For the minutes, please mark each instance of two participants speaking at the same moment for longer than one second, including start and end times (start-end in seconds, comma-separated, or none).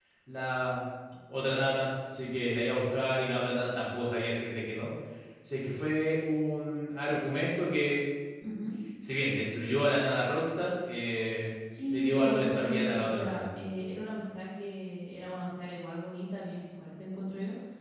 11.9-13.4